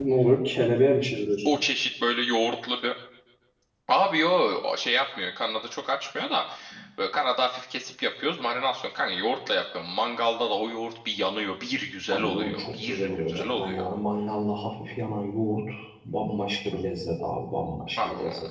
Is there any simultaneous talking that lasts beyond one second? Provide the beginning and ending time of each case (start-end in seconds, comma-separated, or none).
12.1-13.9